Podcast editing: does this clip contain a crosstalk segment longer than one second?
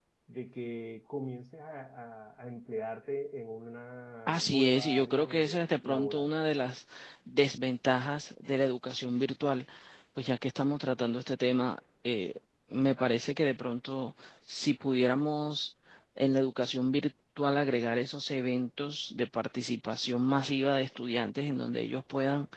Yes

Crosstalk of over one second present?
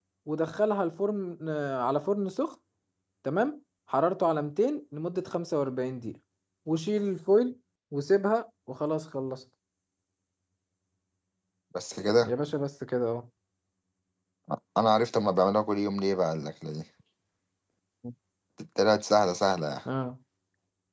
No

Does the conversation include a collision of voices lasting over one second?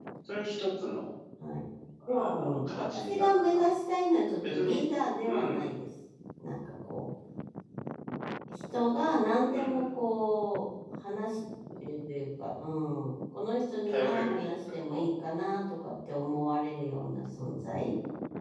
Yes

